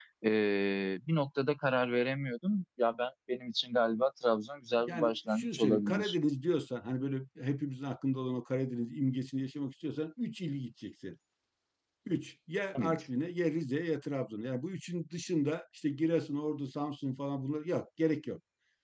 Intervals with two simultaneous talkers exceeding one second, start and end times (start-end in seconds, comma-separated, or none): 4.9-6.2